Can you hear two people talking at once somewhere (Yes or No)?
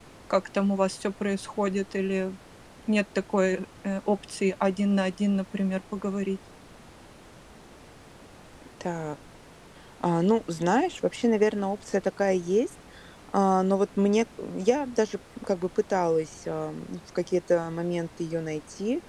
No